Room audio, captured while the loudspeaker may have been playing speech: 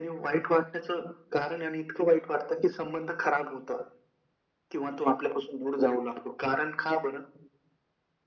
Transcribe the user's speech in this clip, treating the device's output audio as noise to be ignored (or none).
none